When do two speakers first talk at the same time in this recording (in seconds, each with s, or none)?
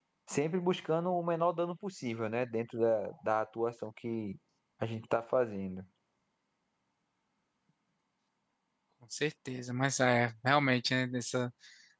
none